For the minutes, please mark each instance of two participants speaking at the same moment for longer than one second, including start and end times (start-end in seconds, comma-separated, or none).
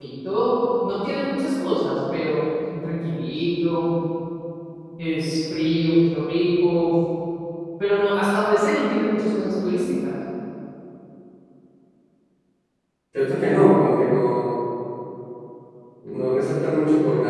none